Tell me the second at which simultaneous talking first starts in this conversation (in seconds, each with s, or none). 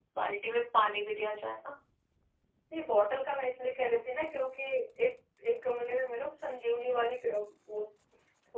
none